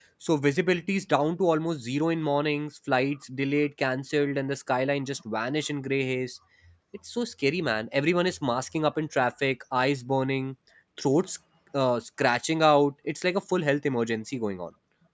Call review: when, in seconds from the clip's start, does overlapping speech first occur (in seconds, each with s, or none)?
none